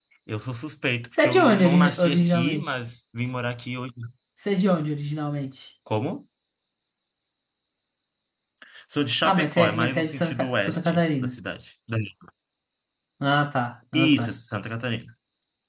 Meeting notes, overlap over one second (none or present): present